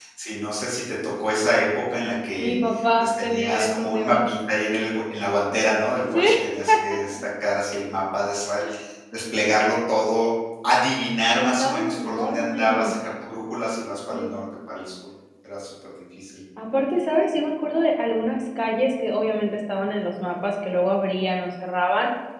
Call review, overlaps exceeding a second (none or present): present